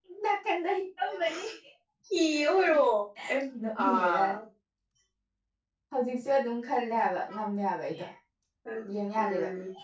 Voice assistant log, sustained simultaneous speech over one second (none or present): none